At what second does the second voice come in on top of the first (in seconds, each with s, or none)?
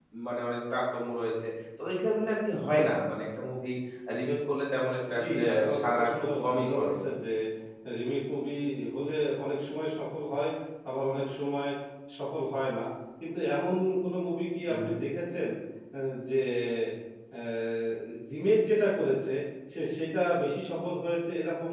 5.1 s